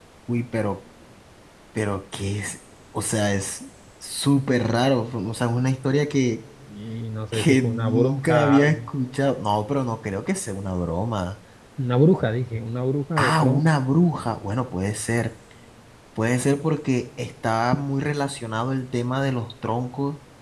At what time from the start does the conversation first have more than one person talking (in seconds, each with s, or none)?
7.3 s